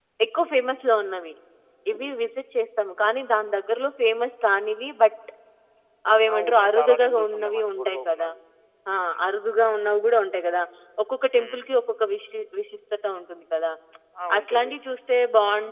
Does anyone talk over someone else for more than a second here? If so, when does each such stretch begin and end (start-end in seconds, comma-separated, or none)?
6.3-8.3